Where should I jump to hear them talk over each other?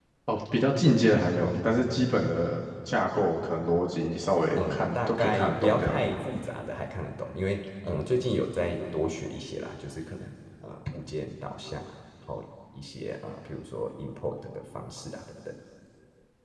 4.6 s

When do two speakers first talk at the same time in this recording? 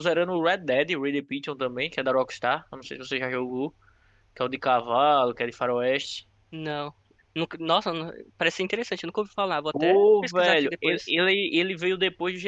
9.7 s

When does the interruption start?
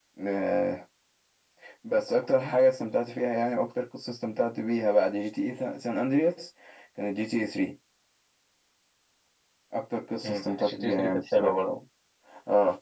10.2 s

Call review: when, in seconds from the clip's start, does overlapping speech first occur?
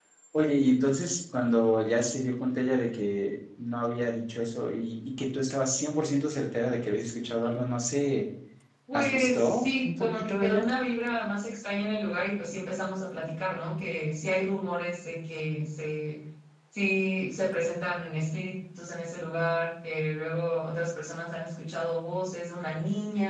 8.9 s

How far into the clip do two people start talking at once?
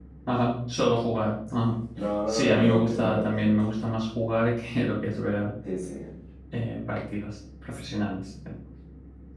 2.3 s

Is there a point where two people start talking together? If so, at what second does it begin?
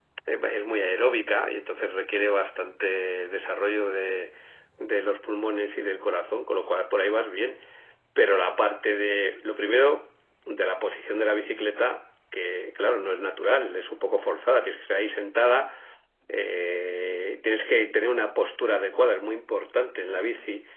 none

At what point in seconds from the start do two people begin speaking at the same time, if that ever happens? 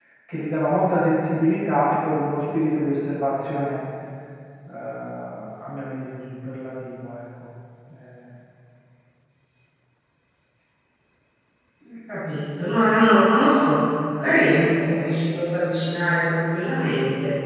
none

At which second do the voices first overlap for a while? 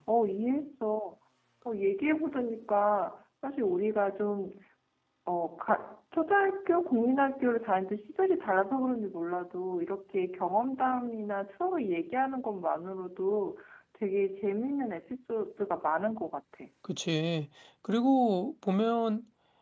none

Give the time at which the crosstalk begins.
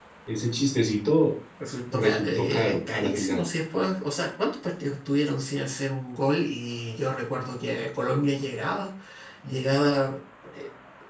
1.9 s

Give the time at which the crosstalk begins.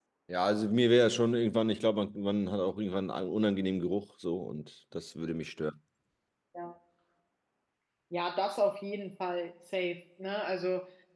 none

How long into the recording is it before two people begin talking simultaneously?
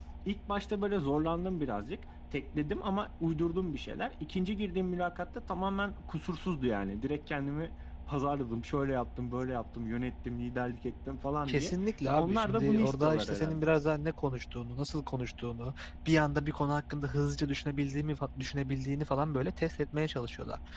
11.5 s

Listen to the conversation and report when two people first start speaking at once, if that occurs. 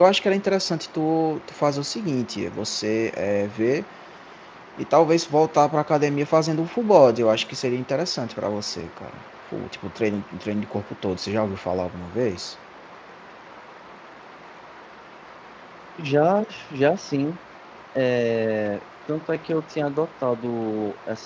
none

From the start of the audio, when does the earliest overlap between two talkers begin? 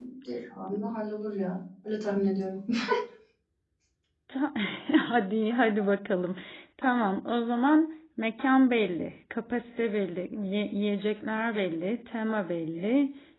none

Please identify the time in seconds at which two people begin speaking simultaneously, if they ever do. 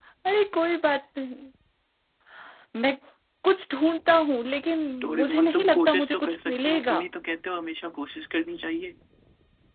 5.2 s

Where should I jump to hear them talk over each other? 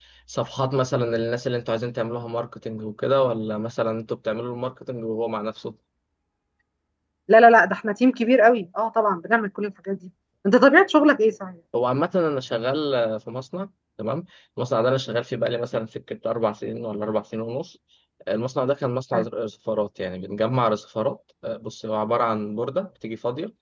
none

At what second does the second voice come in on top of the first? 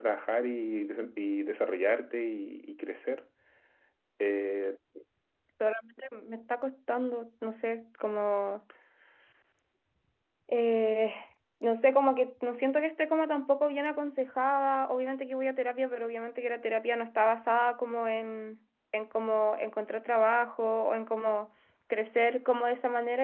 none

